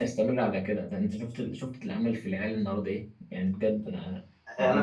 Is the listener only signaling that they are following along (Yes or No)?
No